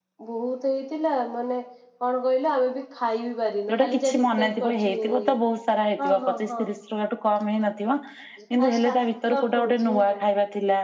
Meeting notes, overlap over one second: present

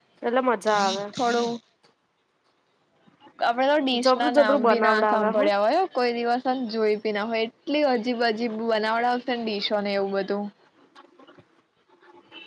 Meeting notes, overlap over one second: present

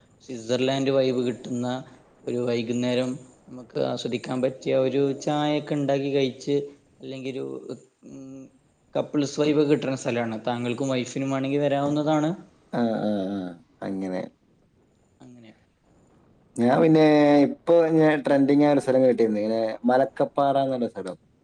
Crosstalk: none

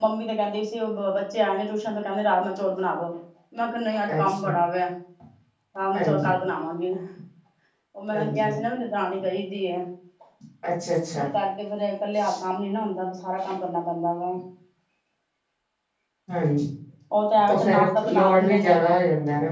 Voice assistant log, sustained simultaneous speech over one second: present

